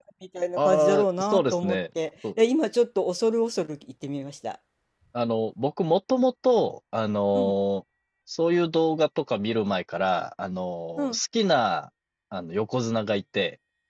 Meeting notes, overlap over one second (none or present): present